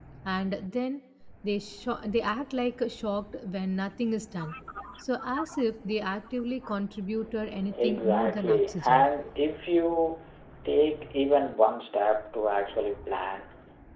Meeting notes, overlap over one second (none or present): present